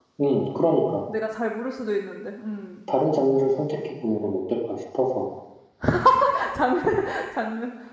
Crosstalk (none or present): none